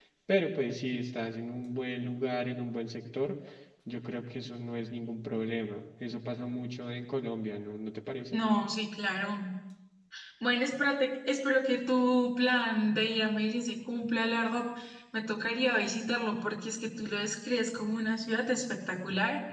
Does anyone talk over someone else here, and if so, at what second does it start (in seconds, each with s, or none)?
none